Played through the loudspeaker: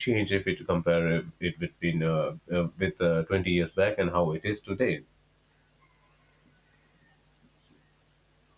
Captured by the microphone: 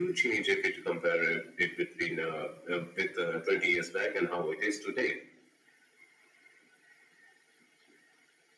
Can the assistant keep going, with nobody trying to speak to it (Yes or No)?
Yes